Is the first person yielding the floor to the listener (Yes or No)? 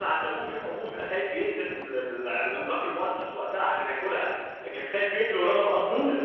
Yes